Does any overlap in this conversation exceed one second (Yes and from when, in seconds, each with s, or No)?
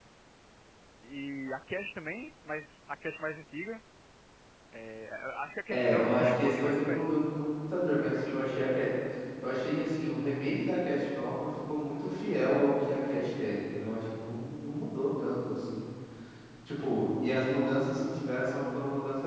Yes, from 5.7 s